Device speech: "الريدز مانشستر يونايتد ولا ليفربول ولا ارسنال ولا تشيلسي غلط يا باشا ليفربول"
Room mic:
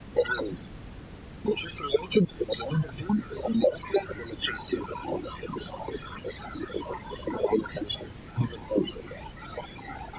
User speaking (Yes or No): No